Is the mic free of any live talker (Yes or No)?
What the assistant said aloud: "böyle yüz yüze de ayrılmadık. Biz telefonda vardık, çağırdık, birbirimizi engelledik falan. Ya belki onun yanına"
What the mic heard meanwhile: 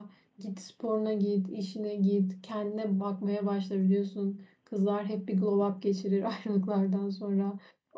No